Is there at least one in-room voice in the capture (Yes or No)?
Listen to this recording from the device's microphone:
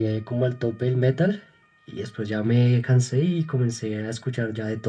No